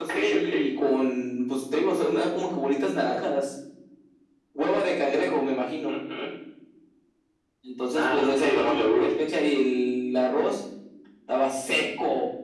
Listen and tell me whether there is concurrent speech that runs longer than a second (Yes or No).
Yes